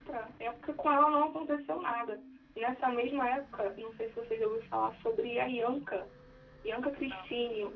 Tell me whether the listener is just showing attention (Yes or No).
Yes